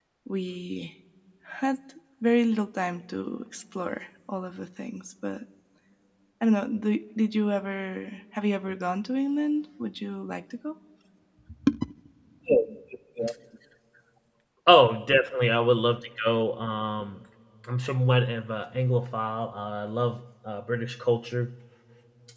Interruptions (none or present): none